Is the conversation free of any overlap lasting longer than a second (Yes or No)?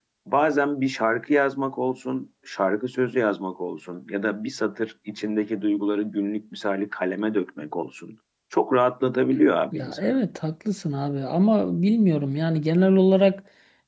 Yes